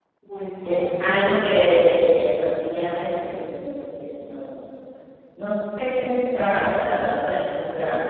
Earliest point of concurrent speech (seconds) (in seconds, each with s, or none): 0.6 s